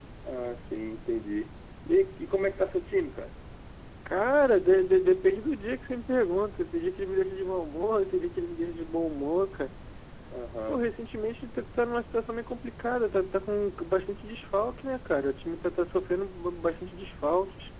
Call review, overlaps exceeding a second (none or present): none